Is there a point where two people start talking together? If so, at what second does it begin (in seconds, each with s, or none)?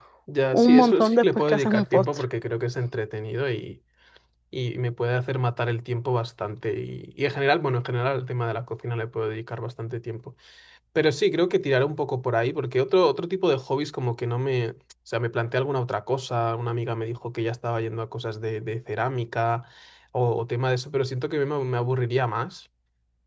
0.5 s